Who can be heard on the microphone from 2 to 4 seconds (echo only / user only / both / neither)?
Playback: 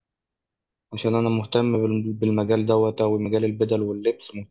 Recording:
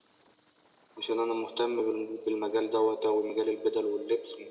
echo only